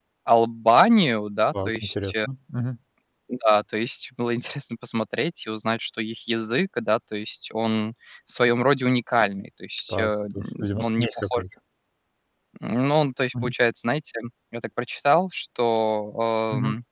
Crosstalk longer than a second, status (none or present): present